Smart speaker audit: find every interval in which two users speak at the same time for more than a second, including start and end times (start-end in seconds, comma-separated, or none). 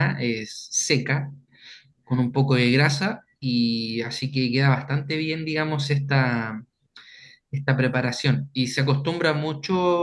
none